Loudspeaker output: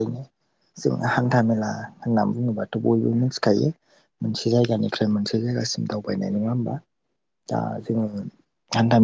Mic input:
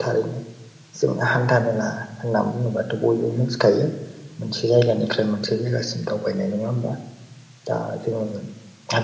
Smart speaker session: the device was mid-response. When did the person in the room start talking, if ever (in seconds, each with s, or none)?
none